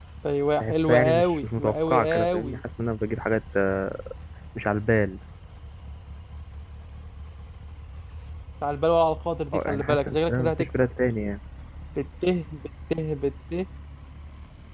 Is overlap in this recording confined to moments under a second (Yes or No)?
No